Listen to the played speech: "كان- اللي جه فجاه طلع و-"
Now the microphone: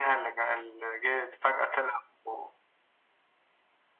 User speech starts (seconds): none

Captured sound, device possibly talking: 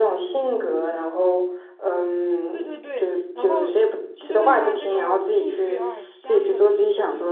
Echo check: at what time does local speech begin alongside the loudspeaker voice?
2.5 s

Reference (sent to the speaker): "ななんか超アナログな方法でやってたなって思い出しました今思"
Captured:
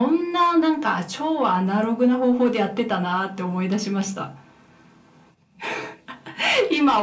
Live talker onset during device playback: none

